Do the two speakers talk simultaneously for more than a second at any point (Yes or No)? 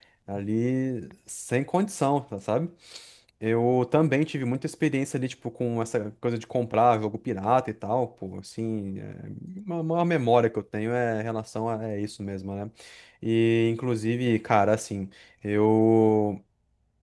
No